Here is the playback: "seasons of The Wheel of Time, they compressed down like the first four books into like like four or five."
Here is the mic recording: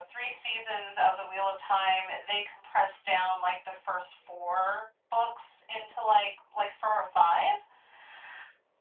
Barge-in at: none

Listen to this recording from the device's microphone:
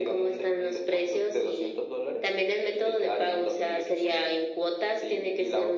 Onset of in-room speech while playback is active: none

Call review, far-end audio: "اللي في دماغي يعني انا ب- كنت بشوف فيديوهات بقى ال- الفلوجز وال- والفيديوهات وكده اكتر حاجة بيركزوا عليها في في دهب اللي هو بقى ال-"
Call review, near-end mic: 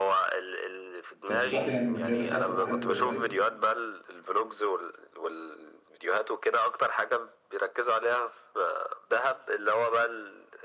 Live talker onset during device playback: 1.2 s

